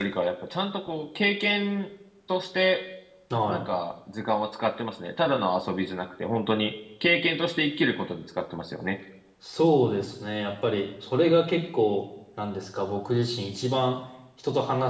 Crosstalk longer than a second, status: none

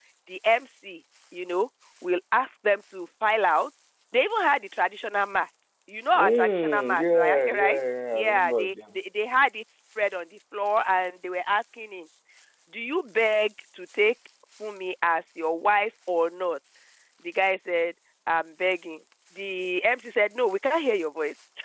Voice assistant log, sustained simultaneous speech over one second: present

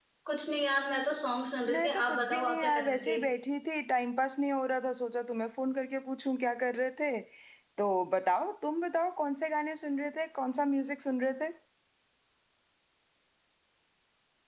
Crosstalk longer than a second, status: present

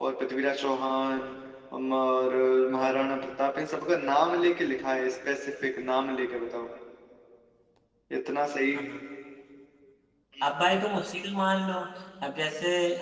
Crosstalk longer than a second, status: none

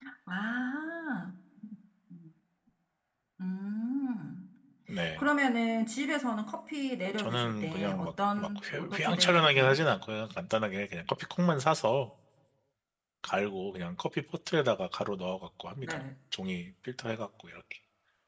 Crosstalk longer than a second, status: present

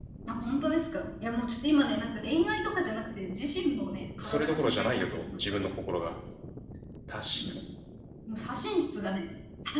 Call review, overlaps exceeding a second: present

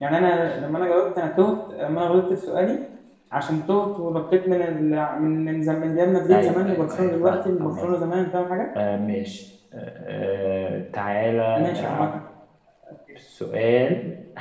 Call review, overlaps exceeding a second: present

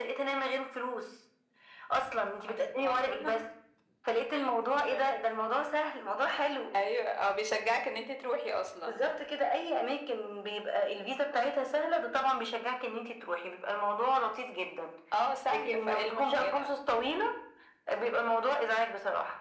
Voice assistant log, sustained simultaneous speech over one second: present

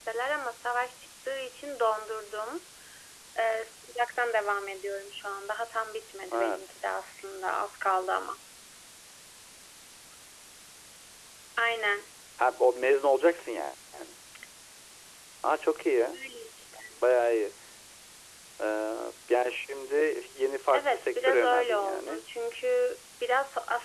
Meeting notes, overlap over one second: present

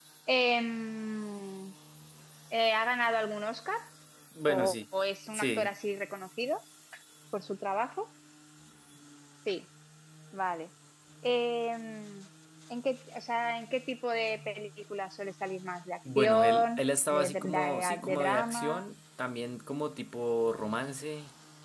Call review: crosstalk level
present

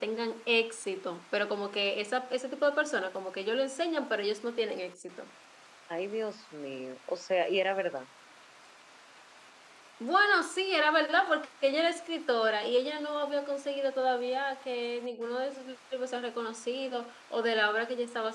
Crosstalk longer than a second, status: none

